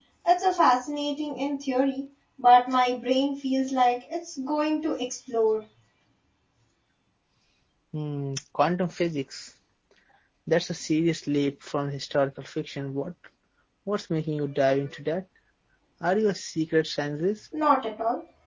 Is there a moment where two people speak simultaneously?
No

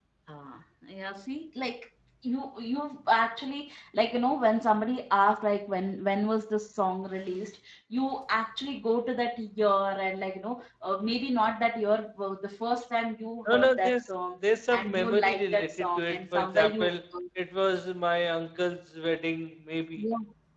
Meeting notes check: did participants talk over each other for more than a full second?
Yes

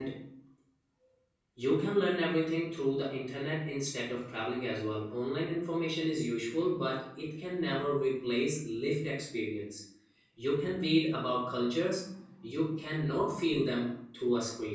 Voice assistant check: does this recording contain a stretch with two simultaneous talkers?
No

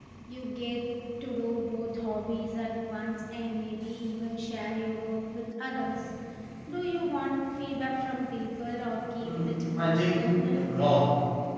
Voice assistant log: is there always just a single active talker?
No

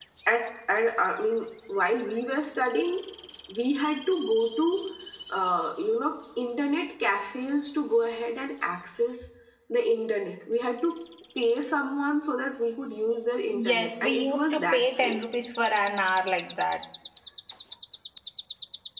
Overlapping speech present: Yes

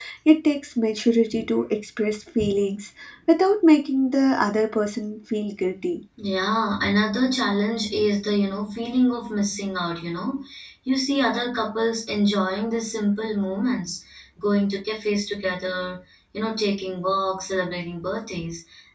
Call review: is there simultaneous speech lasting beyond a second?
No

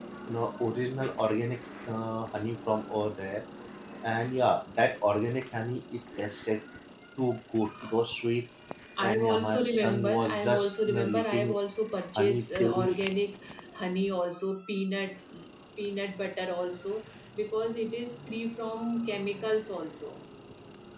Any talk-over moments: Yes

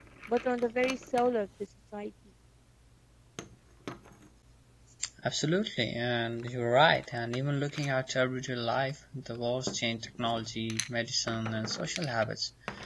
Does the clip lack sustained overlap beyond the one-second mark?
Yes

